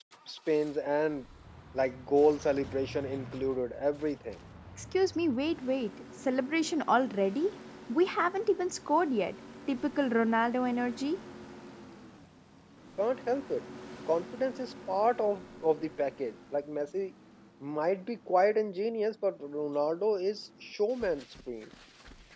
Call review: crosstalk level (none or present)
none